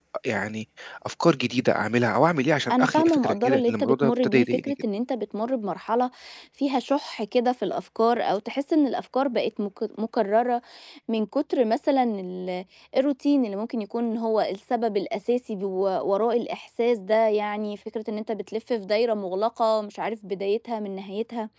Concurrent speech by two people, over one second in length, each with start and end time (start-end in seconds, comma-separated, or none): 2.7-4.7